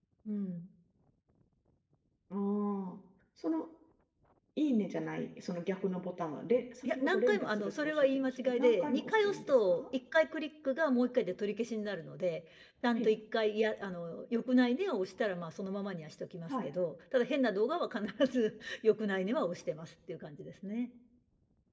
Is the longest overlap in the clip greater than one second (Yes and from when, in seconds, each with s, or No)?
Yes, from 6.8 s